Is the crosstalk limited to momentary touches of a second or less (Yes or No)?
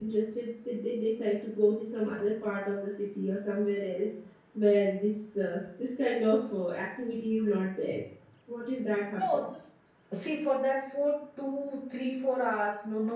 Yes